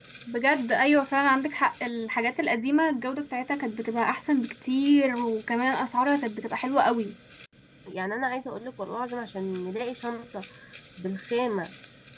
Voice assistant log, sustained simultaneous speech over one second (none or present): none